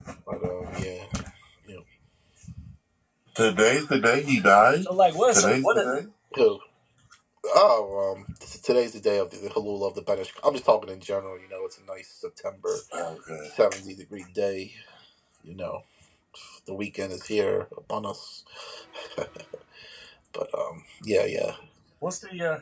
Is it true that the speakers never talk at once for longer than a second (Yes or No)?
Yes